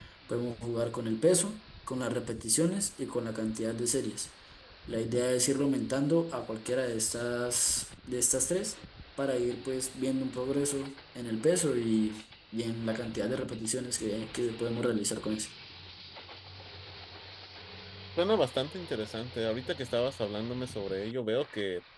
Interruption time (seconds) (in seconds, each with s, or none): none